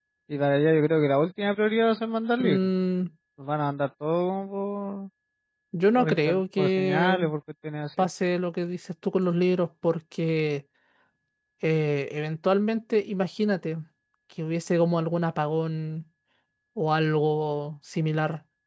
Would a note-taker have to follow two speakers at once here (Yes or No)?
Yes